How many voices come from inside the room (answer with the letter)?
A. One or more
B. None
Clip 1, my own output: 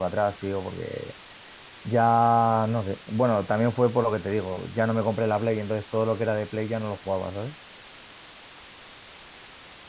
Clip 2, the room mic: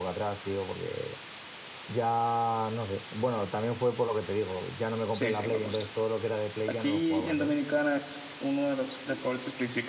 A